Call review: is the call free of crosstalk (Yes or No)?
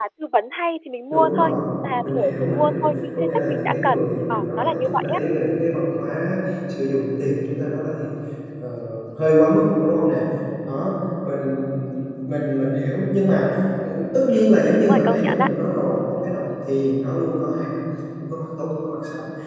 No